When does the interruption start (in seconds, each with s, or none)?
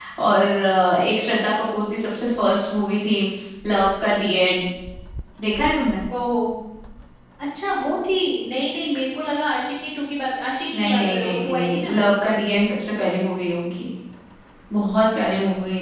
10.7 s